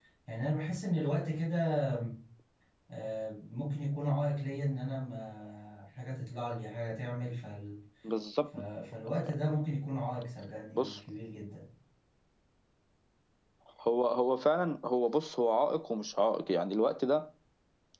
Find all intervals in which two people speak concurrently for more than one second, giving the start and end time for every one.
none

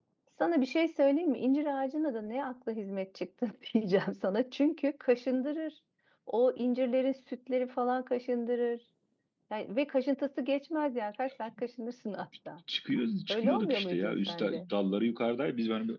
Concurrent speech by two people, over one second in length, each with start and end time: 13.3-14.6

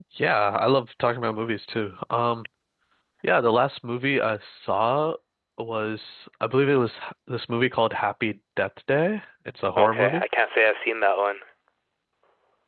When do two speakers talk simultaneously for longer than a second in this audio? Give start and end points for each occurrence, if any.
none

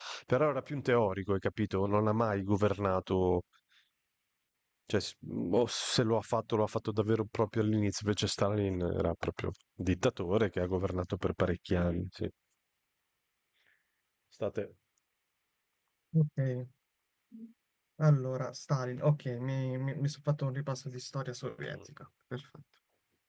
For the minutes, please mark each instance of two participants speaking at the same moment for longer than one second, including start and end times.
none

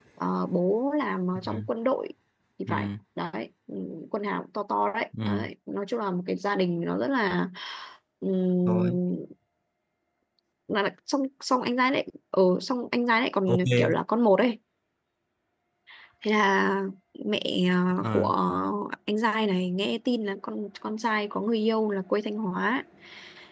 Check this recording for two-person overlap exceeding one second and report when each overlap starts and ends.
none

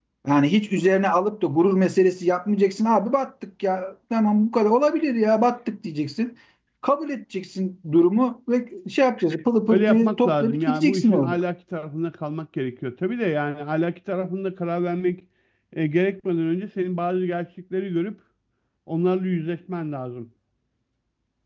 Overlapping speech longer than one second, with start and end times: 9.7-11.4

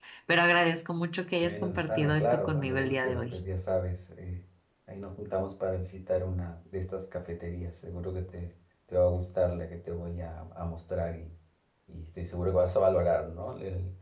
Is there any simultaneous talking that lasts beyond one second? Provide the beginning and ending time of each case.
1.4-3.3

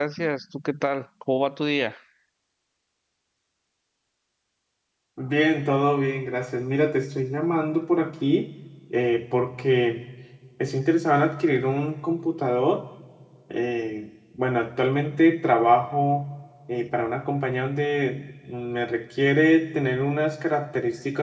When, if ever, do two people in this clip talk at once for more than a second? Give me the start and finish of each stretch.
none

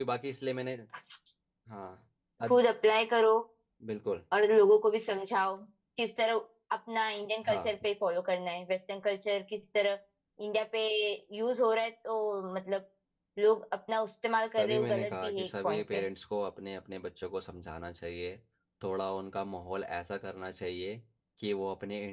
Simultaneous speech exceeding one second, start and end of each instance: 14.6-16.1

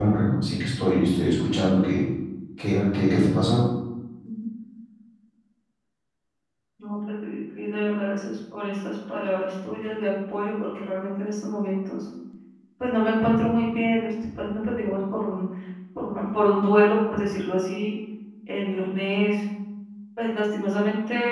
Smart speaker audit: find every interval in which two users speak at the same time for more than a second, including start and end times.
none

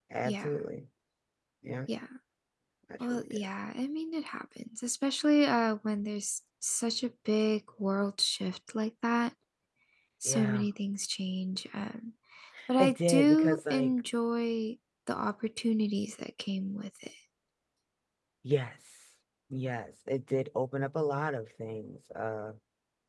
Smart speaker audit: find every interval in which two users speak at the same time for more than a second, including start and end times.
12.8-14.0

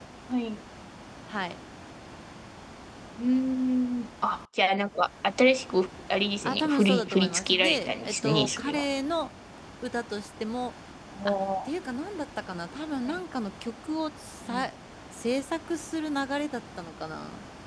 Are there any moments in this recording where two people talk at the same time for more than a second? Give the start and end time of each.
6.4-8.8

